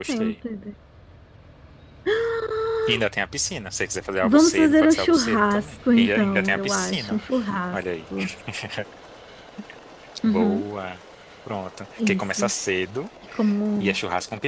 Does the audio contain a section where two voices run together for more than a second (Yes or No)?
Yes